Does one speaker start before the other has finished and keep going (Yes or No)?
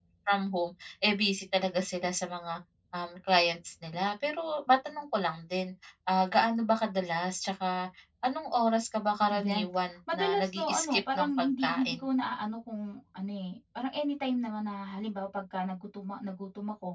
Yes